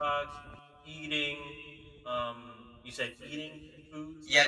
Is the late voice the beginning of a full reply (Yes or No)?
Yes